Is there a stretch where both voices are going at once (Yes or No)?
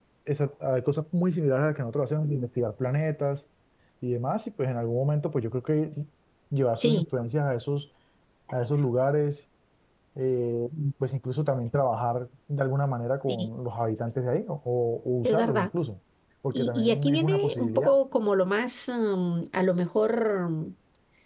Yes